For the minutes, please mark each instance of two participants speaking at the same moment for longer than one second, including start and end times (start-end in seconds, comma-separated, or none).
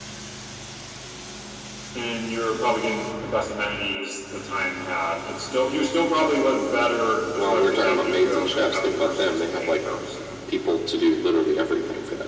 7.4-9.8